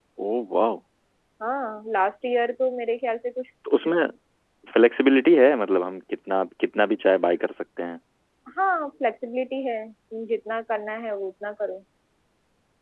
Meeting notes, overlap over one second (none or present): none